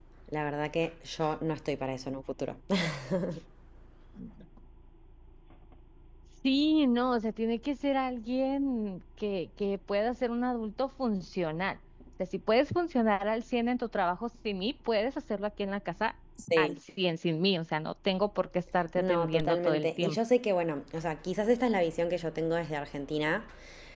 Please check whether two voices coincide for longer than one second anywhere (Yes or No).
Yes